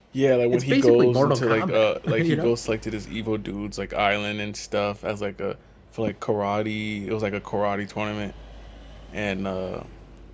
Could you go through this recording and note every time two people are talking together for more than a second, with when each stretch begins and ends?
0.5-2.5

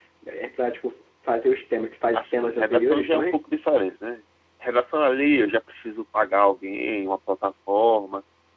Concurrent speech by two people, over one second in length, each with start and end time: 2.1-3.4

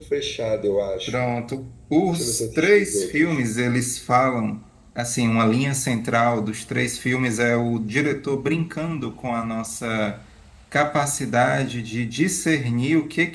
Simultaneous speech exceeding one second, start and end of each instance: 2.1-3.4

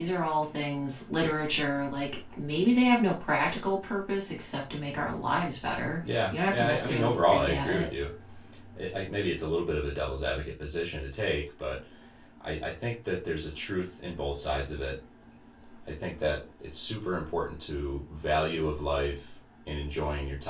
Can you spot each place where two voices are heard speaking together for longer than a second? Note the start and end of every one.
6.3-7.9

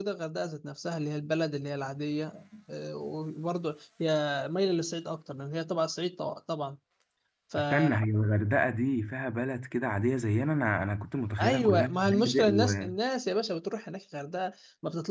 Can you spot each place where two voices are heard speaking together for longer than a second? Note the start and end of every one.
11.4-12.9

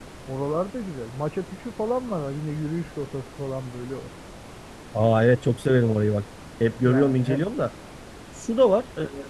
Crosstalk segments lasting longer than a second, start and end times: none

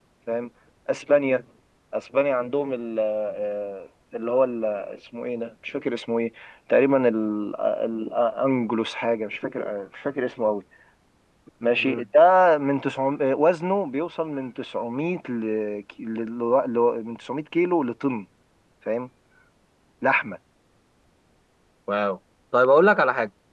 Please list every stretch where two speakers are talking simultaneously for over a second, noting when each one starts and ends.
none

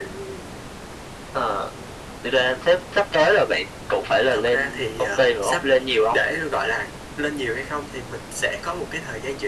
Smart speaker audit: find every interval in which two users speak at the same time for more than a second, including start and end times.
4.3-5.6

